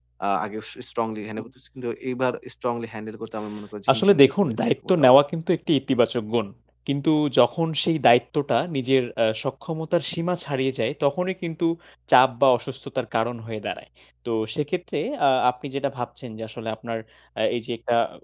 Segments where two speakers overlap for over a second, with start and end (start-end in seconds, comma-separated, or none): 3.9-5.2